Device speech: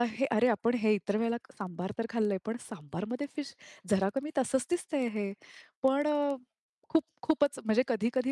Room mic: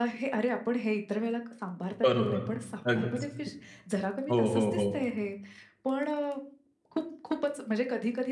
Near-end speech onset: 2 s

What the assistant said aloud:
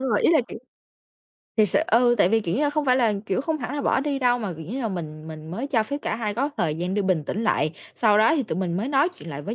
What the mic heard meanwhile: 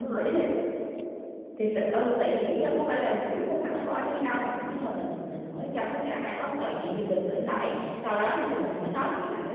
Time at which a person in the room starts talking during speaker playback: none

